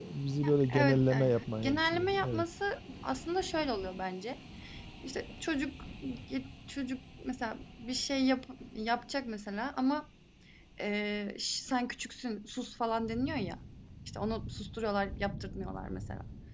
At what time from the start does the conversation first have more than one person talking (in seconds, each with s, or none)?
0.7 s